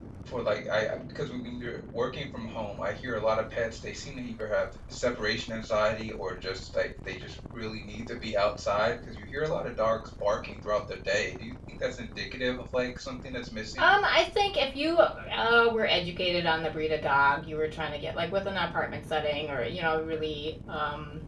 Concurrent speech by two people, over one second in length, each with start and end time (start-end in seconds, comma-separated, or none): none